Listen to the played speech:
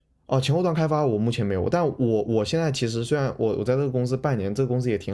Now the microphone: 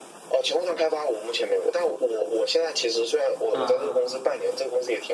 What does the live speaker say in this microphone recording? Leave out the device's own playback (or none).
嗯